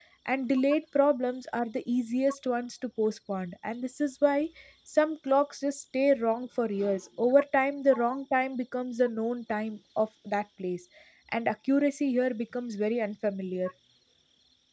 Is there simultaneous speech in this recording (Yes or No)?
No